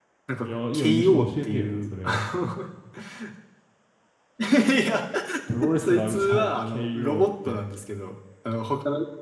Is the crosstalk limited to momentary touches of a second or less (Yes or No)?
No